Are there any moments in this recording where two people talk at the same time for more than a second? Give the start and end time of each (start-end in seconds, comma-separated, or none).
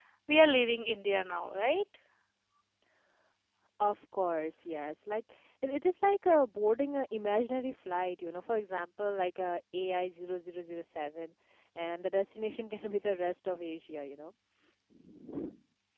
none